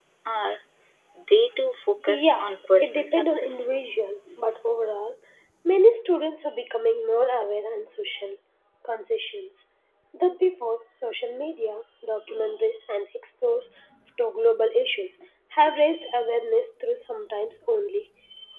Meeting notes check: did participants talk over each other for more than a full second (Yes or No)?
Yes